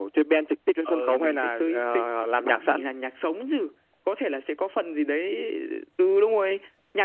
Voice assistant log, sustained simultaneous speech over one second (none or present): present